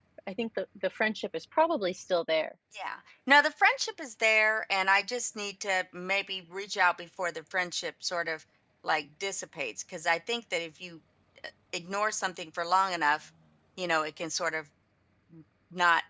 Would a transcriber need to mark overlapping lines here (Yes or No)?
No